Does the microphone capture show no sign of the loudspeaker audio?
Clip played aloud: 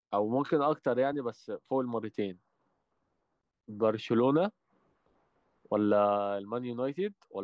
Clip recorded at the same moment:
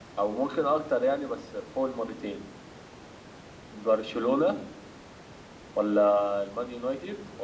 No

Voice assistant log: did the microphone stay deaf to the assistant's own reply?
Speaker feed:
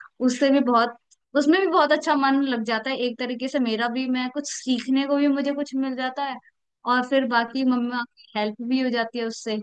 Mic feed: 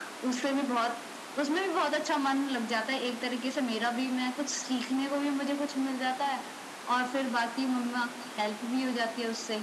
No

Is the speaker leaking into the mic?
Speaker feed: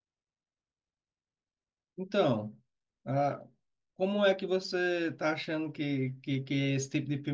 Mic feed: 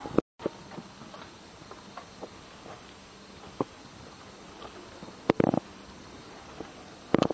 No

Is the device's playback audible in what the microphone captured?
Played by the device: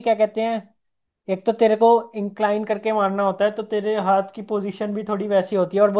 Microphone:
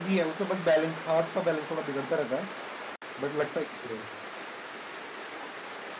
No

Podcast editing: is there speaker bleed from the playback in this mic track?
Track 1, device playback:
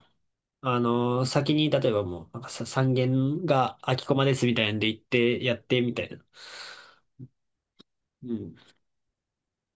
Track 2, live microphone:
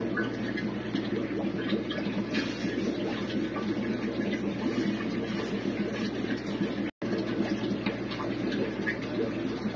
No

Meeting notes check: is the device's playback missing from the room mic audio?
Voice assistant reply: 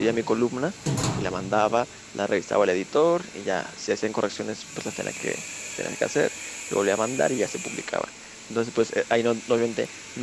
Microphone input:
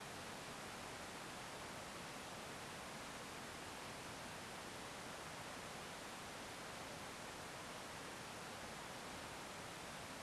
Yes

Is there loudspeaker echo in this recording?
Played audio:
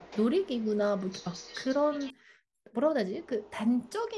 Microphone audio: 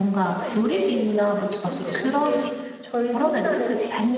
Yes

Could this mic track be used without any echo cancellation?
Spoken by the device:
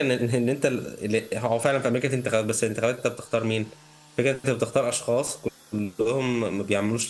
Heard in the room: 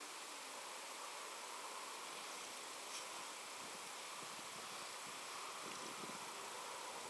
Yes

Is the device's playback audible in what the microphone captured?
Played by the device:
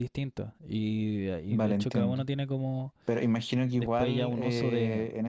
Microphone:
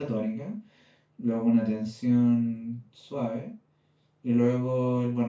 No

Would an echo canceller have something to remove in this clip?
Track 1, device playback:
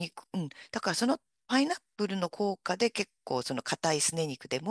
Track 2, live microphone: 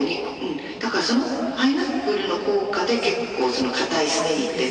Yes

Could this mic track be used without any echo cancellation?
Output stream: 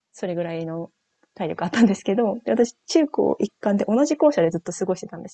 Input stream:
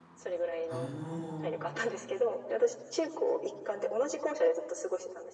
No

